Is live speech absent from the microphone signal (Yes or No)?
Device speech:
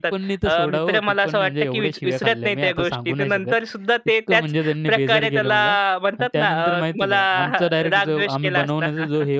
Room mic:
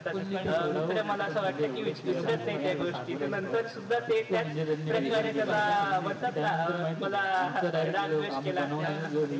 No